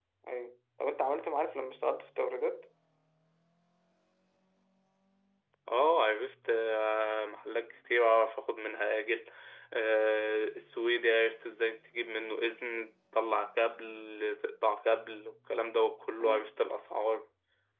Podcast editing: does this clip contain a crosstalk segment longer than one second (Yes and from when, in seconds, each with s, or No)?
No